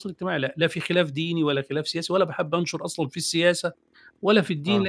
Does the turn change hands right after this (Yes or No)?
No